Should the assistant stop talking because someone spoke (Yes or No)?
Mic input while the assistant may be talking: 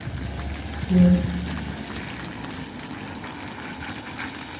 Yes